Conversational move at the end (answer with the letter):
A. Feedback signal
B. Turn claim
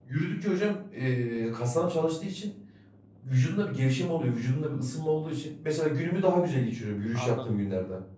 B